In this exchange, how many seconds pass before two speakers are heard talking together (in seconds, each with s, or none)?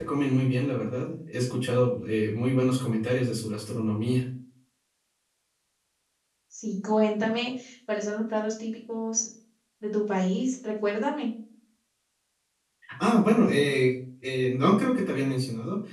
none